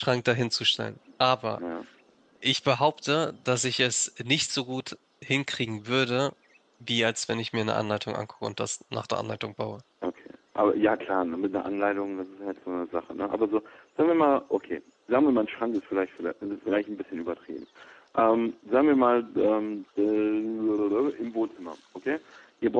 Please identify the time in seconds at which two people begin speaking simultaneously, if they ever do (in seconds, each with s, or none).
none